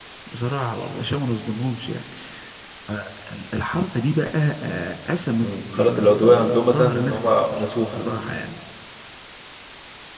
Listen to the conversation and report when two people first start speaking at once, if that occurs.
5.4 s

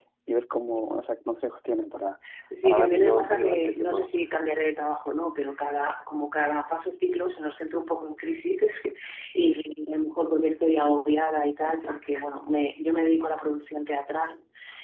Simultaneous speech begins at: 2.6 s

